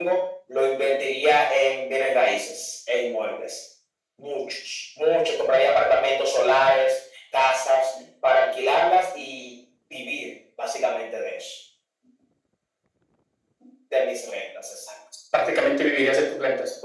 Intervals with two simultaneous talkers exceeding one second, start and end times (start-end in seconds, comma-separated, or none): none